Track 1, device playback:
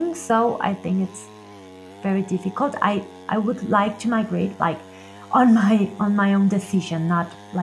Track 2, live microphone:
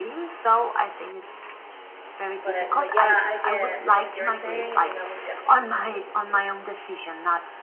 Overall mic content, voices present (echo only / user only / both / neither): both